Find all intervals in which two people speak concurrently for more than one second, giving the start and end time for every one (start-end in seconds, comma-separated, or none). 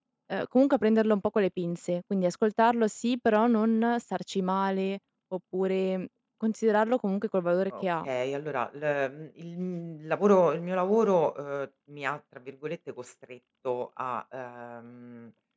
none